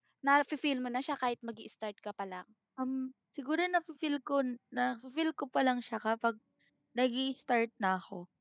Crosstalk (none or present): none